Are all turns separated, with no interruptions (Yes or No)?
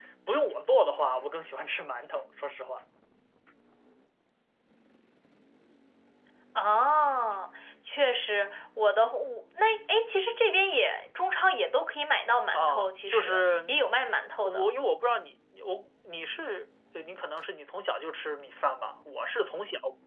No